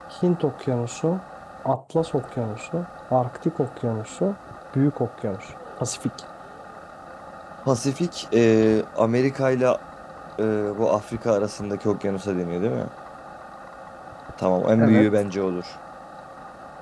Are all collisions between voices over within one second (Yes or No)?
Yes